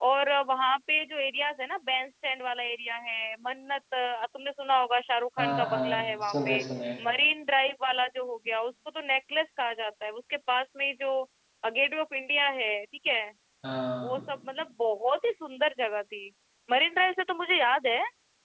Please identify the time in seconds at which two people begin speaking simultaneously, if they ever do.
5.4 s

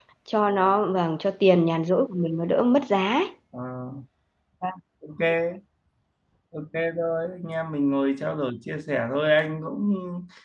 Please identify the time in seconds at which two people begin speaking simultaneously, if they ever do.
none

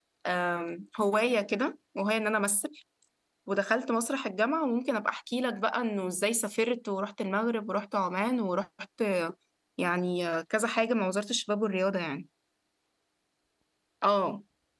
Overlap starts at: none

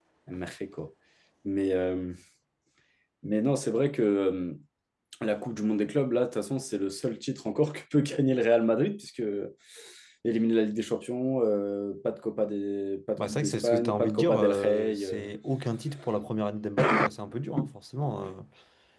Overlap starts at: 13.2 s

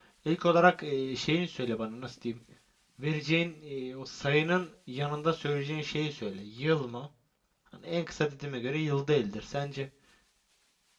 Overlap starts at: none

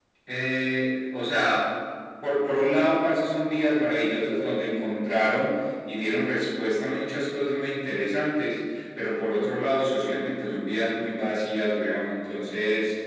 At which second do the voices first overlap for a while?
none

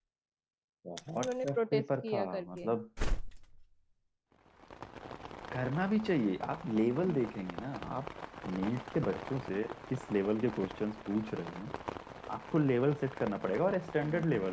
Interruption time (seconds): 1.2 s

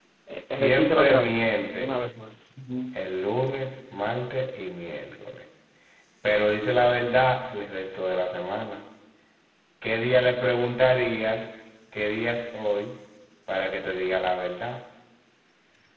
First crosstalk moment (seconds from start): 0.5 s

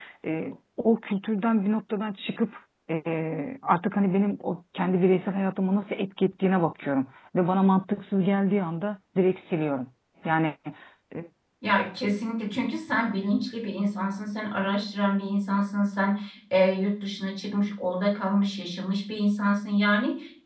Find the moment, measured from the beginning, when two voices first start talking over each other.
none

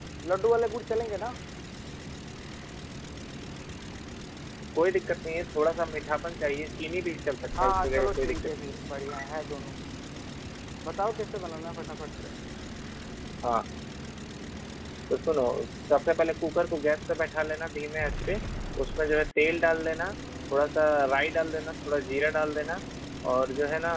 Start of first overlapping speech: 7.6 s

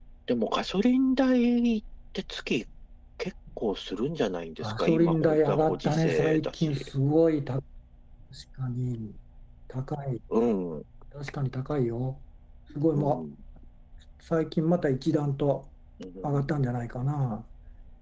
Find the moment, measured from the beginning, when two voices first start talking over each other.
4.6 s

